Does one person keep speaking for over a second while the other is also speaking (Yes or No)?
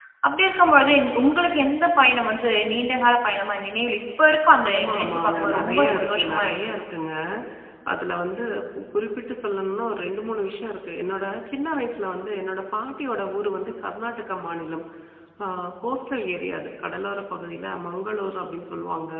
Yes